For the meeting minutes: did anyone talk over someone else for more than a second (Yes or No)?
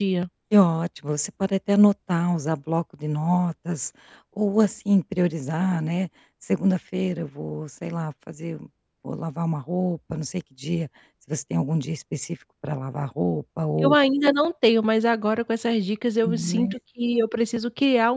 No